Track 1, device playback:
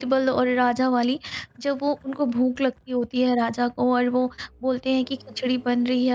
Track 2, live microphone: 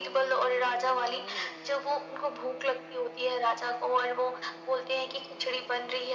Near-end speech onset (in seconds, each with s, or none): none